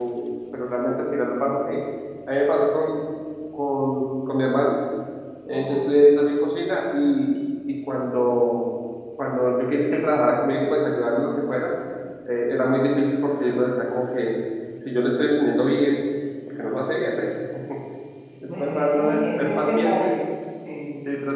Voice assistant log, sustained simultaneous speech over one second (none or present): present